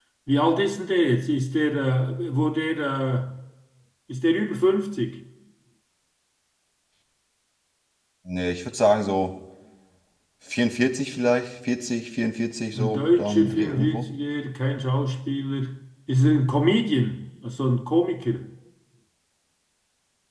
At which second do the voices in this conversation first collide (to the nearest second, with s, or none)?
13 s